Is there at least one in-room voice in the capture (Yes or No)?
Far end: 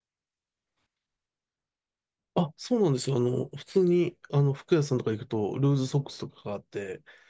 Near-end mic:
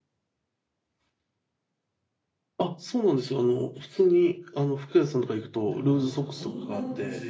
Yes